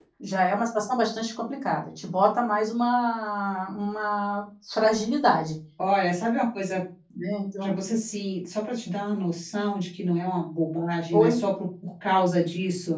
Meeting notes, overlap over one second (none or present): none